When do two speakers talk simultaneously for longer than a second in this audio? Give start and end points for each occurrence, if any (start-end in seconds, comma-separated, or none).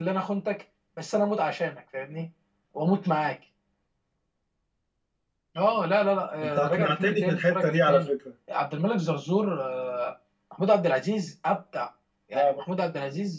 6.4-8.1